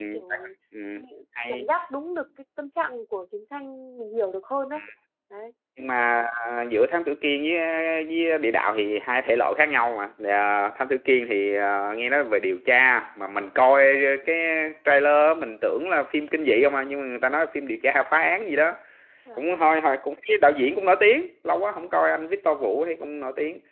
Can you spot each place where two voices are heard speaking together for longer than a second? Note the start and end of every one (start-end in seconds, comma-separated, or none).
none